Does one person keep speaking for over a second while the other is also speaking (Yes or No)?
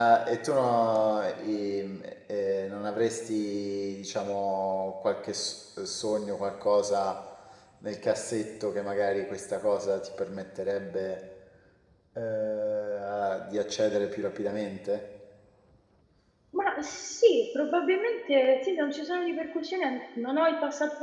No